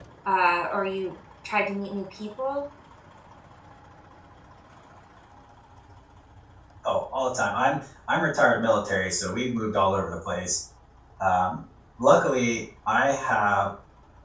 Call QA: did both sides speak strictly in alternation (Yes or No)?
Yes